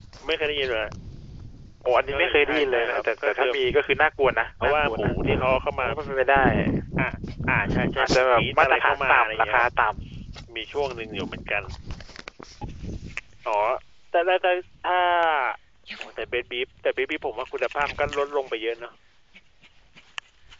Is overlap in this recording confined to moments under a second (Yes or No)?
No